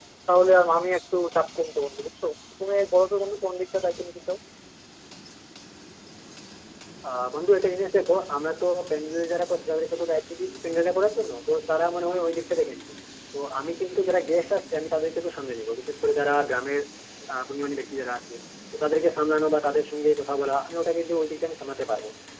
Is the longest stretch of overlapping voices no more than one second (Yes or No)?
Yes